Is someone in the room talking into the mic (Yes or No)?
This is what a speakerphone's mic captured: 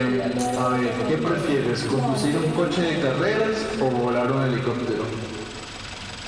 No